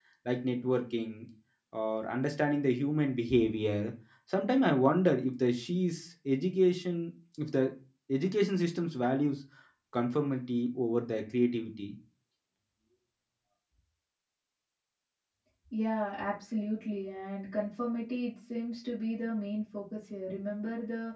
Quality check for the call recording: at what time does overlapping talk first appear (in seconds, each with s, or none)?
none